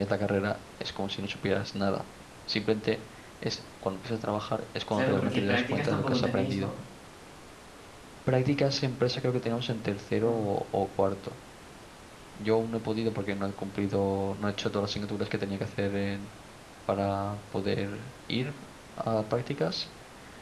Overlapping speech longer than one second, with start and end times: 4.9-6.7

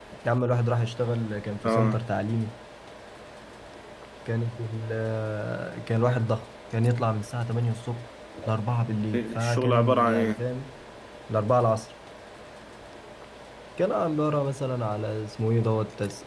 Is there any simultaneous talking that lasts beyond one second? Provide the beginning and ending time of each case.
9.1-10.4

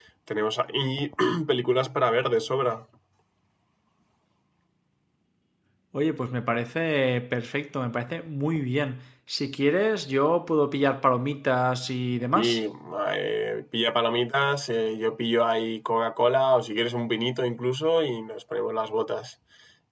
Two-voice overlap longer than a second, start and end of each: none

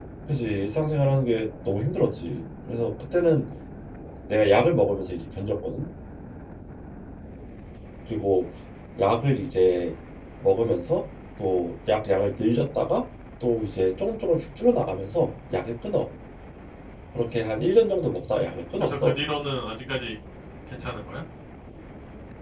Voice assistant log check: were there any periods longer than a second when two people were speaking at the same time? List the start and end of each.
none

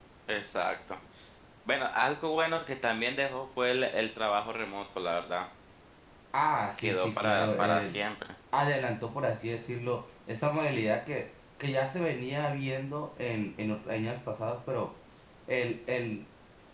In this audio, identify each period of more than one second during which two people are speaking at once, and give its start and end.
6.8-8.0

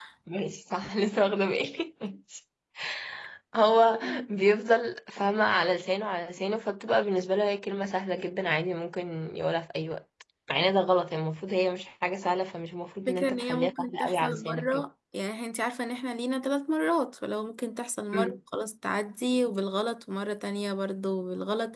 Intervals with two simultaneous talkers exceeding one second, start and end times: 13.1-14.9

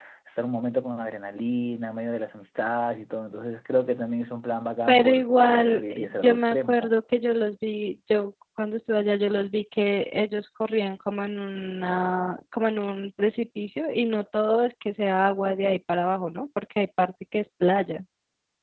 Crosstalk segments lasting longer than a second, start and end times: 5.7-6.9

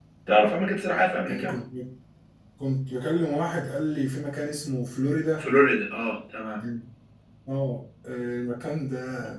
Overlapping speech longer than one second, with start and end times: none

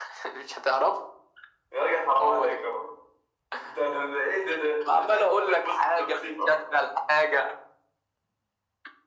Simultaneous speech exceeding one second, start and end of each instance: 4.8-6.5

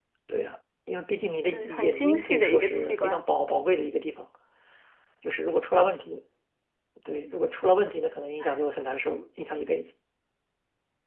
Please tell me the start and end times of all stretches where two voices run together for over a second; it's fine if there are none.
1.5-3.2

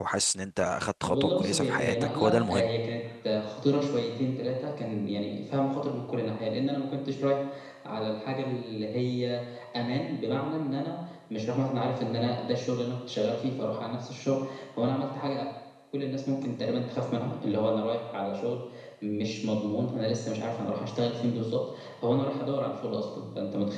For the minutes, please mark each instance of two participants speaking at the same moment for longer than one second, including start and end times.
1.1-2.7

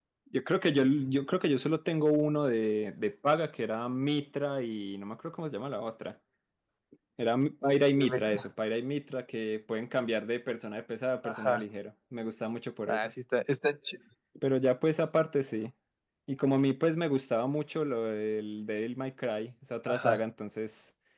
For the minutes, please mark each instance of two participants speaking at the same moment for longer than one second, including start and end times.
none

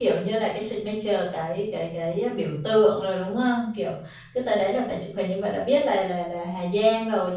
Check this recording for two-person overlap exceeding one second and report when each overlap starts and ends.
none

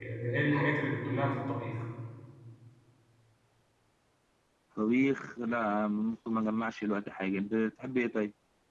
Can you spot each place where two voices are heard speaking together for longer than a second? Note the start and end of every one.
none

